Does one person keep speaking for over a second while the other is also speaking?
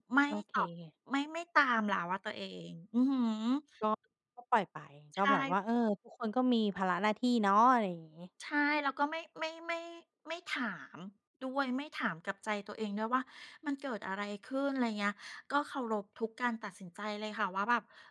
No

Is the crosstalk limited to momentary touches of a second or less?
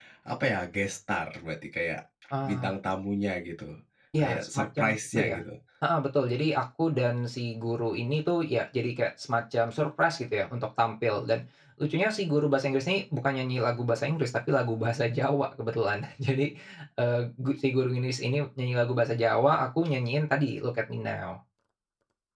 No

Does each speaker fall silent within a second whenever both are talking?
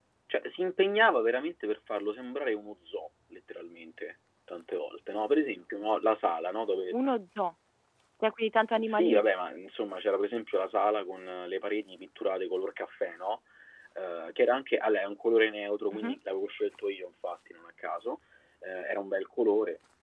Yes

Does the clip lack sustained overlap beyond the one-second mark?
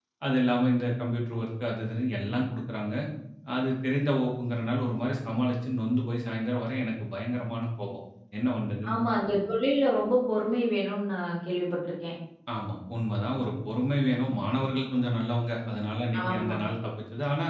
Yes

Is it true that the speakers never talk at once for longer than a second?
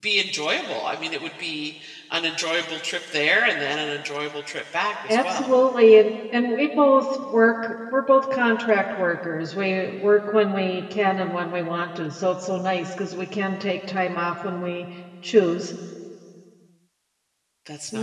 Yes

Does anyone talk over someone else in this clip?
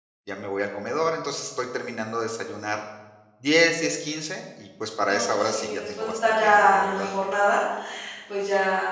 Yes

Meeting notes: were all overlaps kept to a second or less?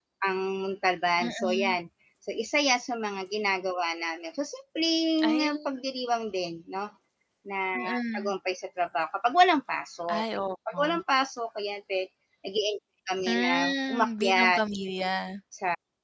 No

